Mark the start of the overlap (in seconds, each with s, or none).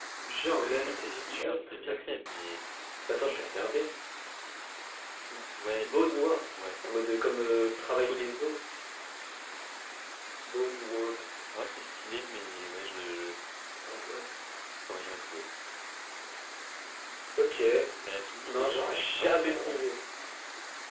0.9 s